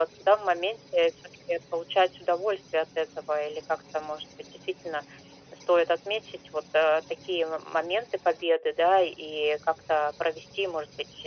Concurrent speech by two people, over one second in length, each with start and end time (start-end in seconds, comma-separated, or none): none